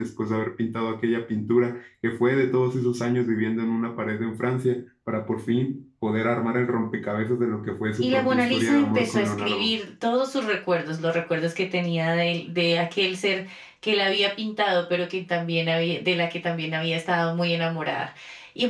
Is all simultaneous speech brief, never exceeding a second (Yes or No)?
No